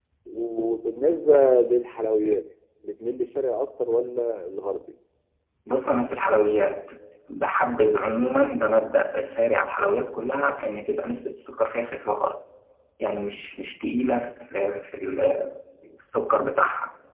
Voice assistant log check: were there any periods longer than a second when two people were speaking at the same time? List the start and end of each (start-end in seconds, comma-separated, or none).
none